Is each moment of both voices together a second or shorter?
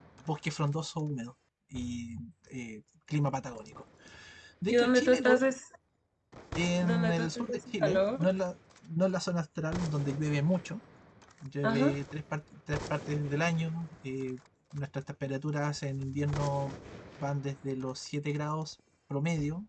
No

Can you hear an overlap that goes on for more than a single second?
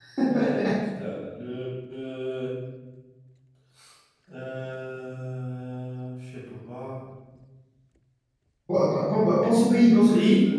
No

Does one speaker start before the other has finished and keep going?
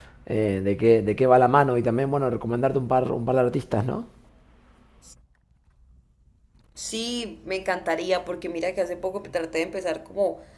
No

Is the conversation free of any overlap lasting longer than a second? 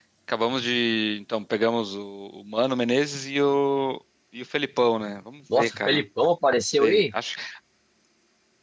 Yes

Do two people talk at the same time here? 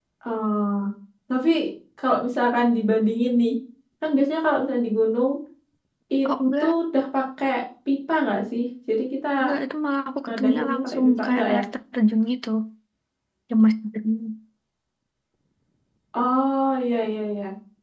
Yes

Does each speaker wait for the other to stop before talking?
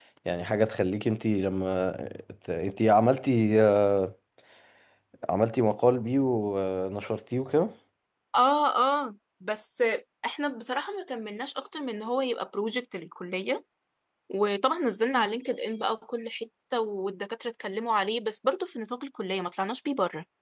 Yes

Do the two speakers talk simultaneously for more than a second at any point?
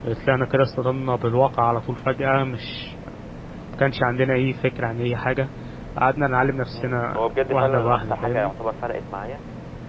Yes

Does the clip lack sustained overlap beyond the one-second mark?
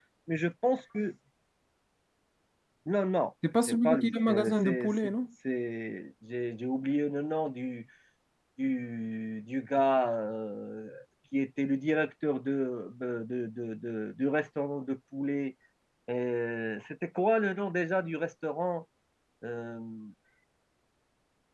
No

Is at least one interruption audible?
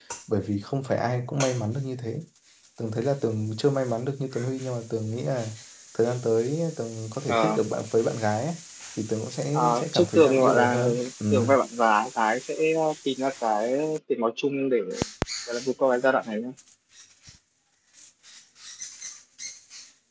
Yes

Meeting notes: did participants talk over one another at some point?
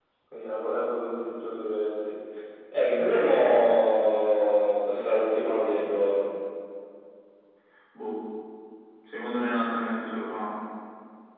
No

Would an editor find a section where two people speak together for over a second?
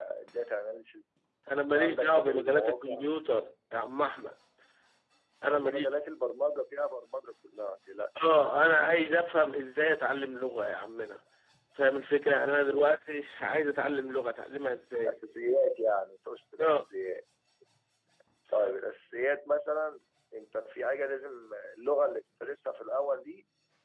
Yes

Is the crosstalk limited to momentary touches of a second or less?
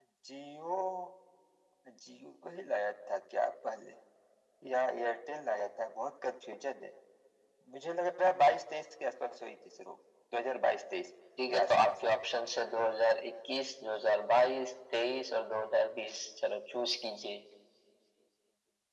Yes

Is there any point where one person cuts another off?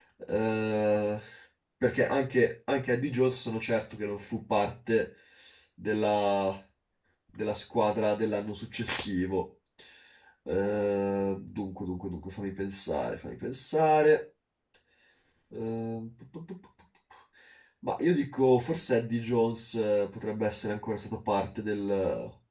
No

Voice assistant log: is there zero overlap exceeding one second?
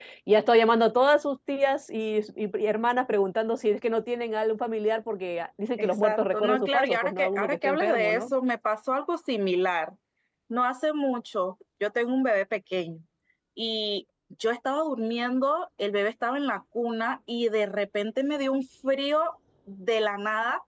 No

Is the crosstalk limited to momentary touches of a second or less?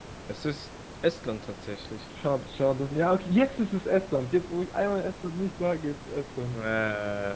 Yes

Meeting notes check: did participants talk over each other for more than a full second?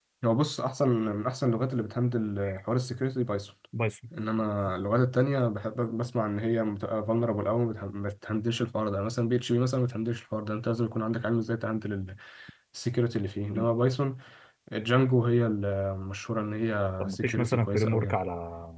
Yes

